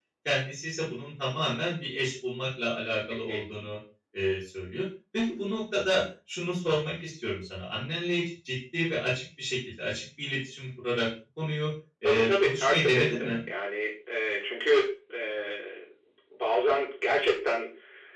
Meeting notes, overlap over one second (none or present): present